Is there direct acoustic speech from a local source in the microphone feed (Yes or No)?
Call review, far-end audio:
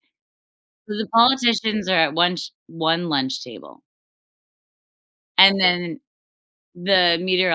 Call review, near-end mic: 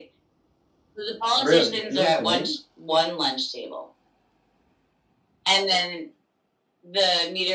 Yes